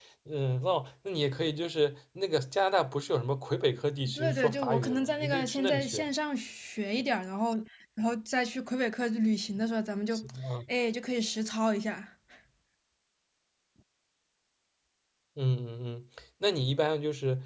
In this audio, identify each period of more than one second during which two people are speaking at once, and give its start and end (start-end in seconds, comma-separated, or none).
4.1-6.1